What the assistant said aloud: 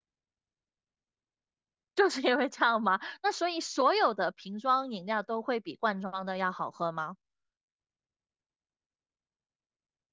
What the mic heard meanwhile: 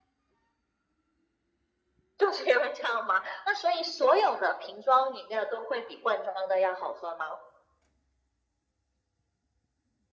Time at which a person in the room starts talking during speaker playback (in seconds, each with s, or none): none